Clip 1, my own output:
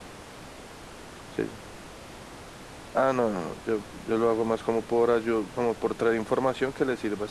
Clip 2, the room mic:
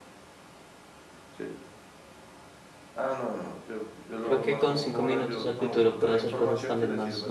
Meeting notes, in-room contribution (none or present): present